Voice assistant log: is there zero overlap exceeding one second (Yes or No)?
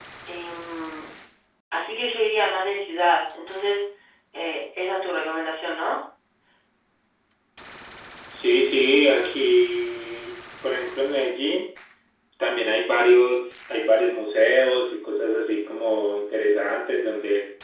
Yes